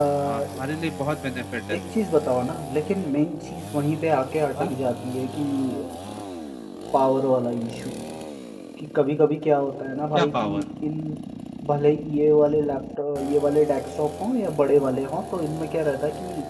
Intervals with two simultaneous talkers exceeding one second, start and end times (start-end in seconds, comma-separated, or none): none